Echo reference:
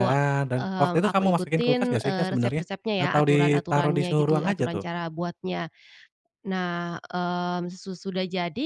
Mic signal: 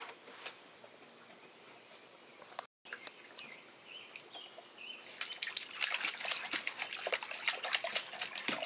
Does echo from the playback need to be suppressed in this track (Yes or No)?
No